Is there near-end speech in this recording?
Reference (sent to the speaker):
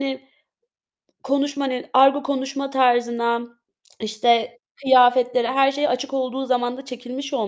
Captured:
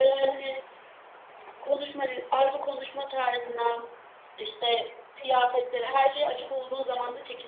No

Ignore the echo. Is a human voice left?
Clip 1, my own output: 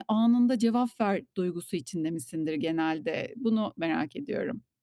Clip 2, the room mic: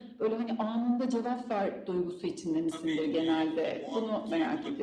Yes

